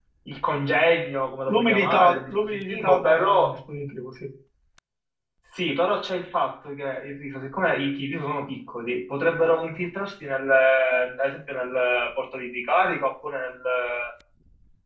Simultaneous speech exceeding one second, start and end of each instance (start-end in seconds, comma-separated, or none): 1.5-3.6